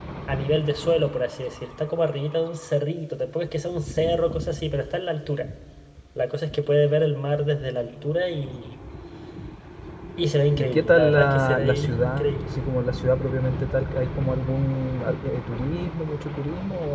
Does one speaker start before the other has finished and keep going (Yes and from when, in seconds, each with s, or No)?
Yes, from 10.6 s